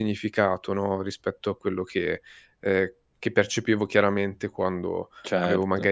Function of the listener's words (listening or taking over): listening